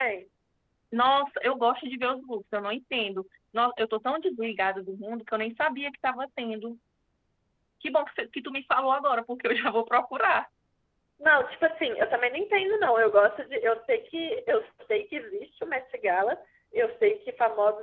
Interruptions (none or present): none